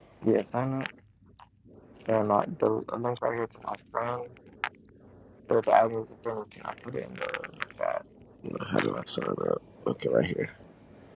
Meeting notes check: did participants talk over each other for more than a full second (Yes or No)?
No